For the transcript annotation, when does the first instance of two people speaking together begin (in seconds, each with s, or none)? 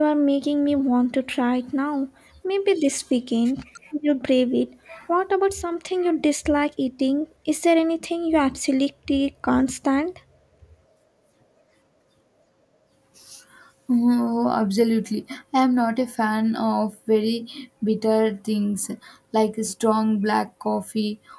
none